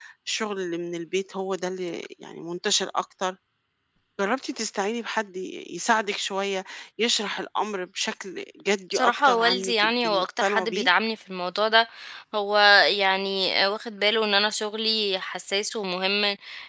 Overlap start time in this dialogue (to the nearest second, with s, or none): 9 s